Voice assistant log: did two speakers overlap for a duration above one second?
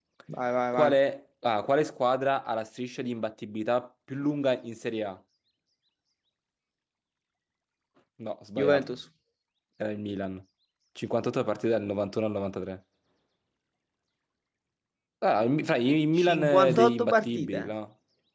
Yes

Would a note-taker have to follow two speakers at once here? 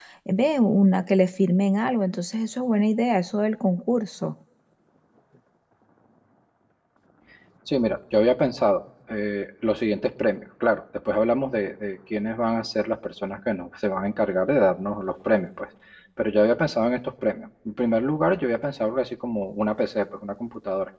No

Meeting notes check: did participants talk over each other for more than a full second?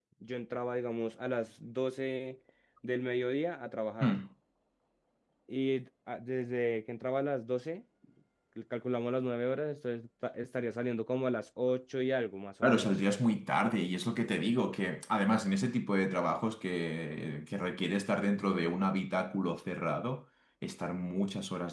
No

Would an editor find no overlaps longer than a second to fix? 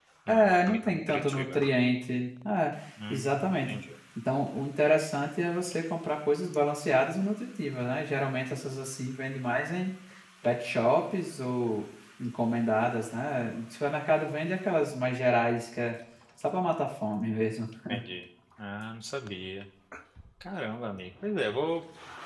No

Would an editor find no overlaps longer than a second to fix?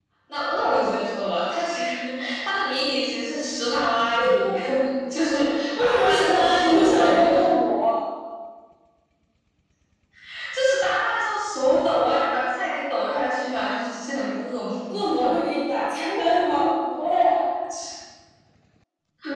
No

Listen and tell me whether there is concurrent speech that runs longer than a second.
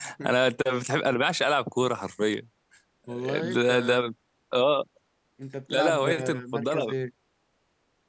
Yes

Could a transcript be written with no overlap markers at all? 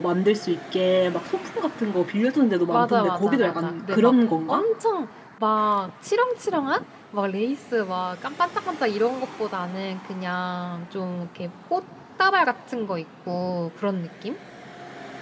No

